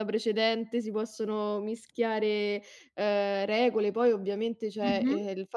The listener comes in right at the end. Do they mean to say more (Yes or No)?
No